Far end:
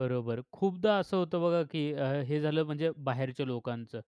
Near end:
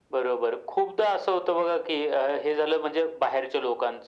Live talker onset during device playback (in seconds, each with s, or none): none